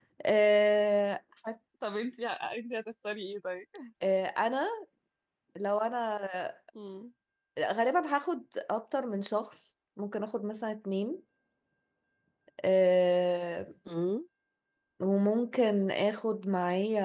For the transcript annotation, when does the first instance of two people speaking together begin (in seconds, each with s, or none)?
none